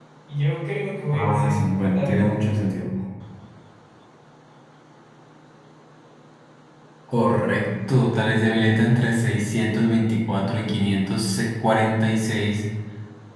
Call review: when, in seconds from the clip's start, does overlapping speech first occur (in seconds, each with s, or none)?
1.1 s